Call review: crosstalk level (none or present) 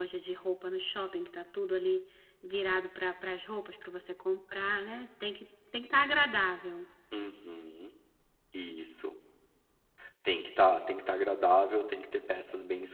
none